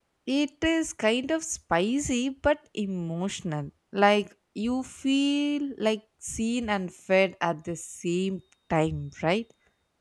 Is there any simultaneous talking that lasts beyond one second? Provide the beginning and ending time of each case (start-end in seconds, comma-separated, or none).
none